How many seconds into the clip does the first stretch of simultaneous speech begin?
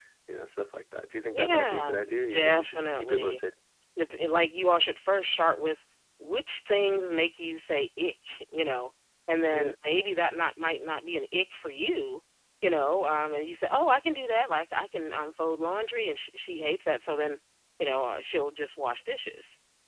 1.3 s

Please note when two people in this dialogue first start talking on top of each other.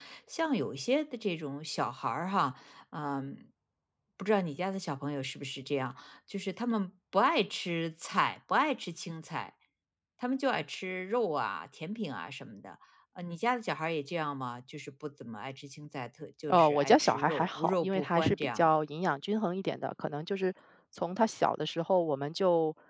16.5 s

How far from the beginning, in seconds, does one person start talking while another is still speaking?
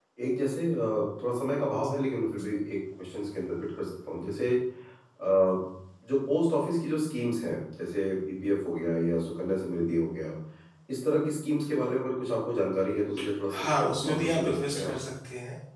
13.6 s

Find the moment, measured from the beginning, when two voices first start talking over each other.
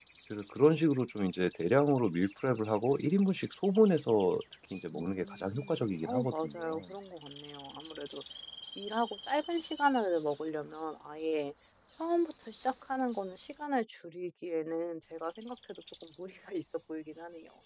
4.9 s

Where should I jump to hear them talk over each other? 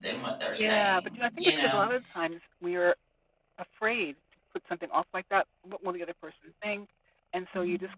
0.6 s

